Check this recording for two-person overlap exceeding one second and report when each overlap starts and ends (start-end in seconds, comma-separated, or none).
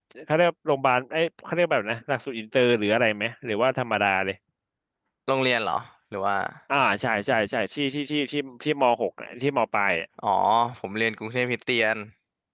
none